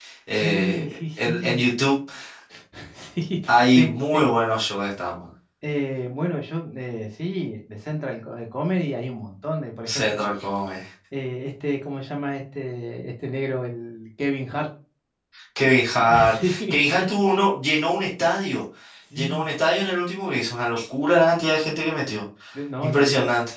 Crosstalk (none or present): present